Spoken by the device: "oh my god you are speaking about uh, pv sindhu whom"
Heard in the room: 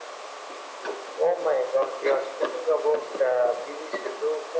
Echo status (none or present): present